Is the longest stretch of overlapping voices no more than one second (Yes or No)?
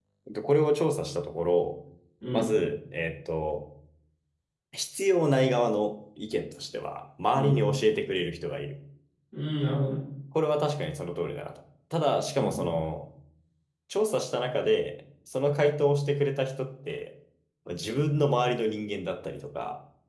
Yes